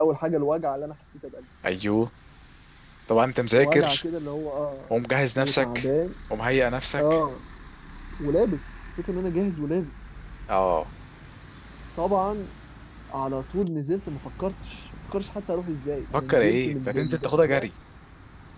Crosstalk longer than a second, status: present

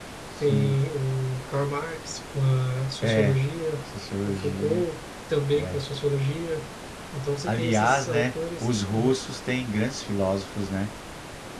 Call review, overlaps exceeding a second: present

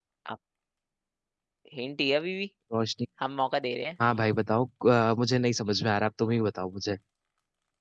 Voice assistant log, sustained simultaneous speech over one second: none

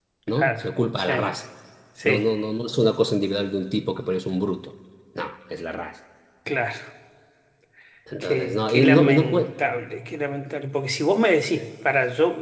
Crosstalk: present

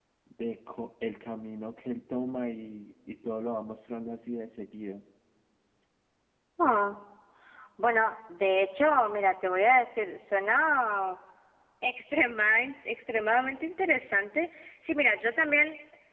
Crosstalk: none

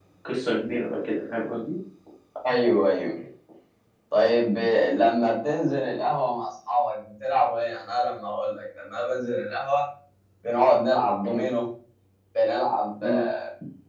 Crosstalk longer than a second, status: none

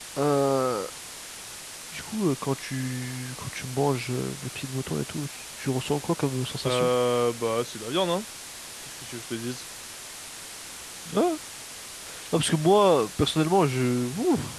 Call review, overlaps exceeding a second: none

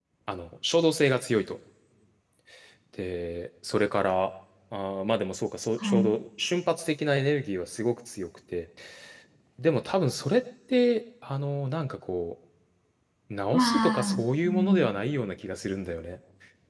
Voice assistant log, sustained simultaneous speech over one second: present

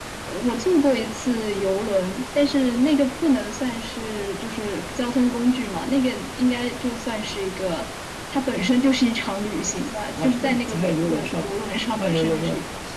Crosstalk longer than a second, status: present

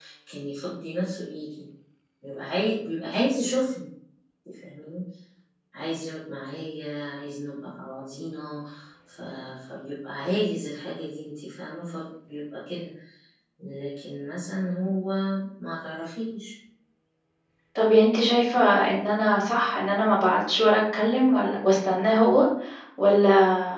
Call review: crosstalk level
none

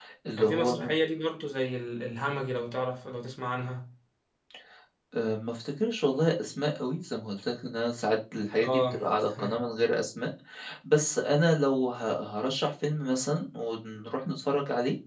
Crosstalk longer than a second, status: none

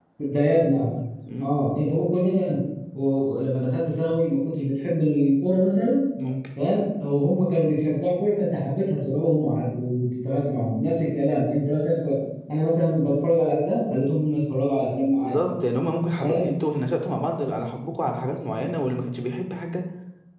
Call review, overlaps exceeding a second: none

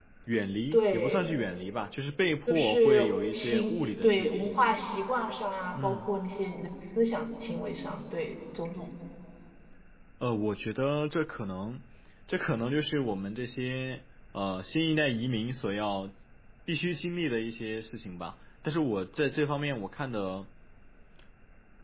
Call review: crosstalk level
present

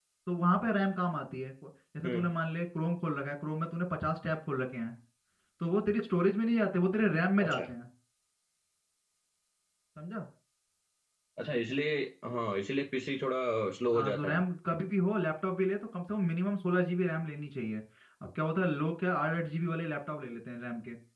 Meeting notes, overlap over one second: none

